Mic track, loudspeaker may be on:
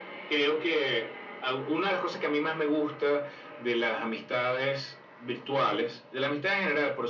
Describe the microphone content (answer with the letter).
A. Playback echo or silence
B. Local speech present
A